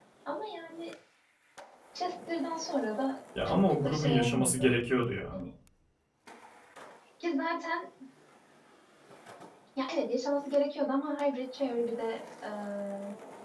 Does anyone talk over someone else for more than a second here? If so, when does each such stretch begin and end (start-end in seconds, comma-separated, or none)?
3.5-4.7